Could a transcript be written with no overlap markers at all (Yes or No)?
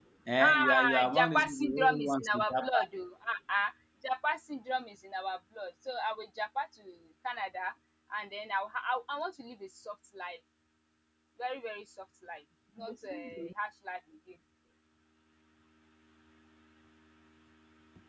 No